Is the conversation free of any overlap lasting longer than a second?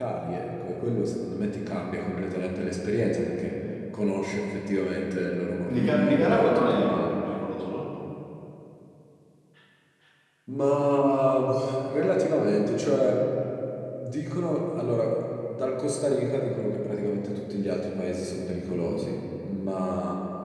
No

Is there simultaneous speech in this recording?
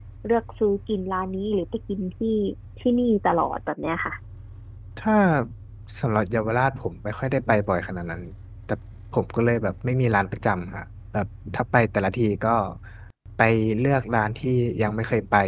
No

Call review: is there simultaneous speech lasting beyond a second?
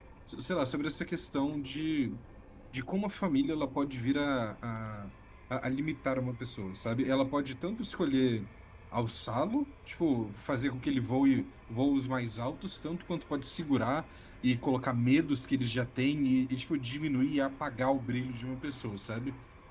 No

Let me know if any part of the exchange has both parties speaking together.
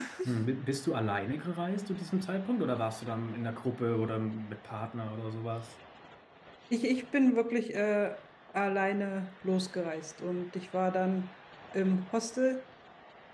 No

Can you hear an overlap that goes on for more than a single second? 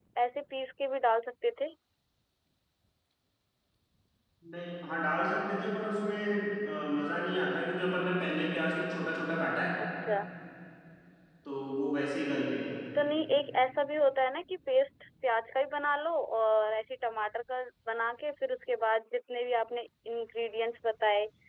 No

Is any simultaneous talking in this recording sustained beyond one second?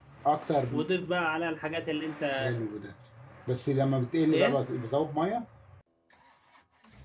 No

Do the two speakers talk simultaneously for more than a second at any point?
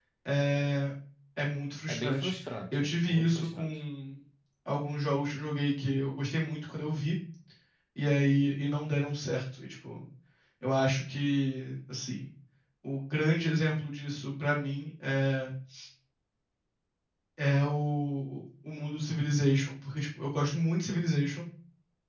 Yes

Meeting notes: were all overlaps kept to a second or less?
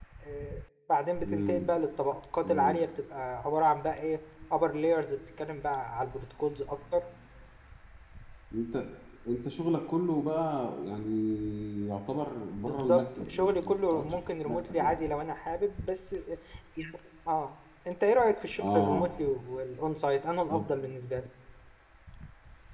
No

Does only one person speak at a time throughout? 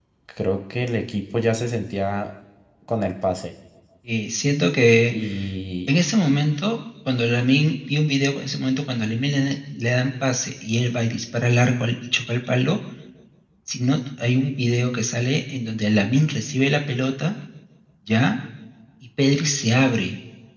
Yes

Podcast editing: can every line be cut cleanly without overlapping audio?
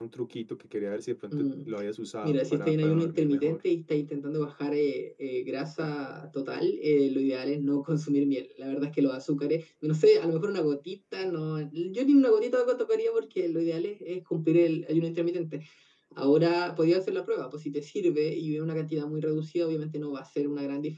No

